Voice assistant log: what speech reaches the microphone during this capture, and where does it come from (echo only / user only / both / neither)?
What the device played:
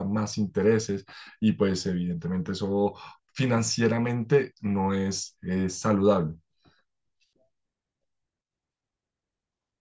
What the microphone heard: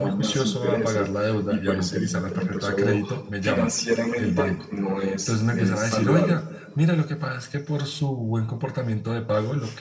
both